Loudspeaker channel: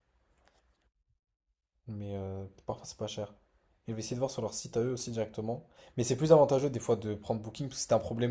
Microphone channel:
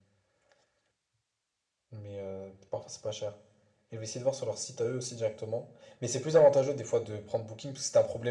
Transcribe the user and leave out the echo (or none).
none